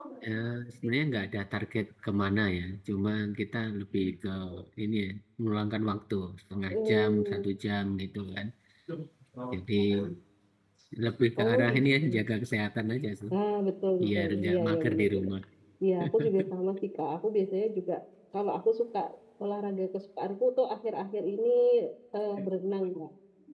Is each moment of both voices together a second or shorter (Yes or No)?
No